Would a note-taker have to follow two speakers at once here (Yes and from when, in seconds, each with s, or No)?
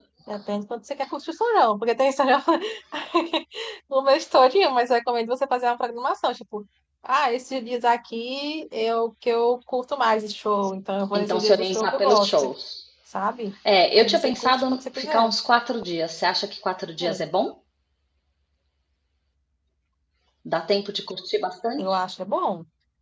Yes, from 11.1 s